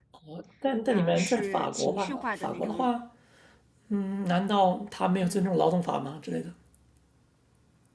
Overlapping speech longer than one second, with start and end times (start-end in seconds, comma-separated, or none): 0.9-2.8